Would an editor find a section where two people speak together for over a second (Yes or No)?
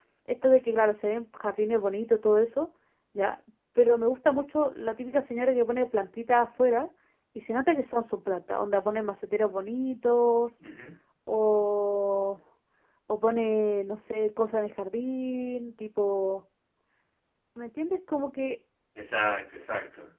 No